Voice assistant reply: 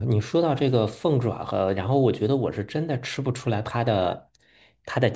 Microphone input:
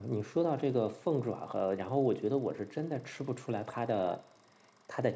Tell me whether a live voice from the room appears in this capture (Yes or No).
No